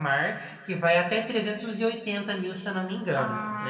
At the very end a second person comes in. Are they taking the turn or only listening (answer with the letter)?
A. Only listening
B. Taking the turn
B